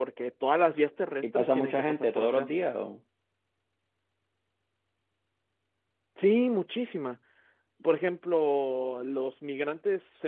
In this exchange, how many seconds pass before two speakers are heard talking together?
1 s

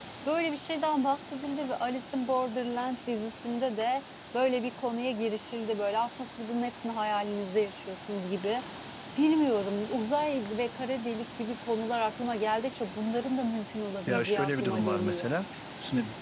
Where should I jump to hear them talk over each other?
14 s

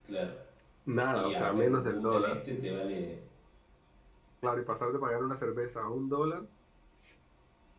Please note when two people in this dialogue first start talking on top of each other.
1 s

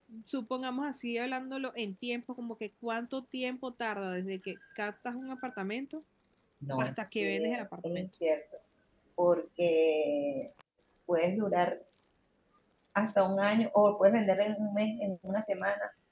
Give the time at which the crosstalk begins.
7 s

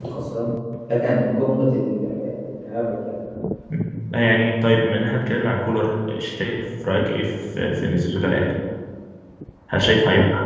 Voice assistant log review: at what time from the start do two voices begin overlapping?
none

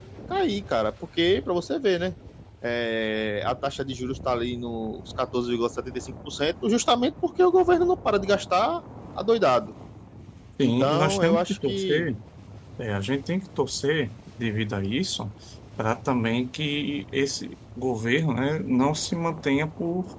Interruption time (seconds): 11 s

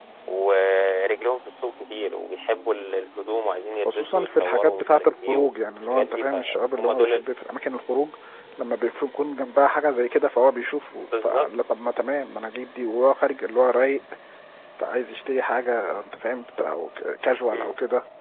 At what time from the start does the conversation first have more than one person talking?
4 s

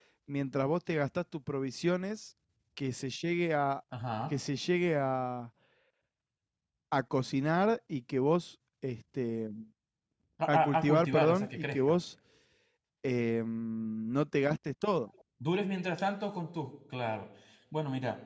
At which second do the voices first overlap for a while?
10 s

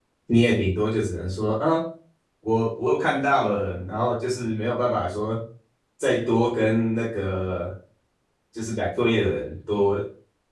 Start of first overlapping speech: none

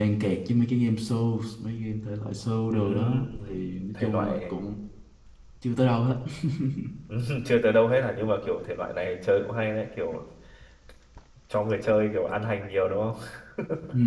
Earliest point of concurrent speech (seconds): 3 s

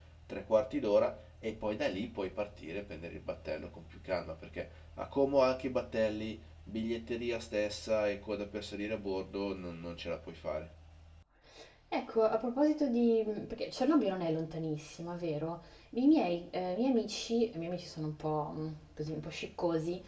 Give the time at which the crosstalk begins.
none

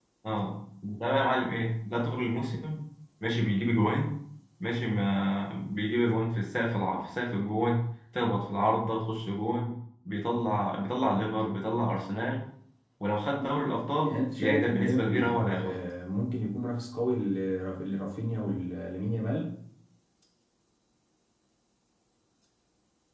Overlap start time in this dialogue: 14 s

